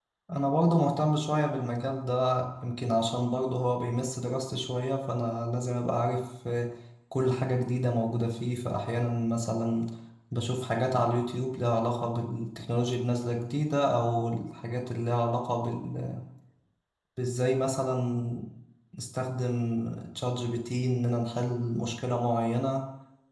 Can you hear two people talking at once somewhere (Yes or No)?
No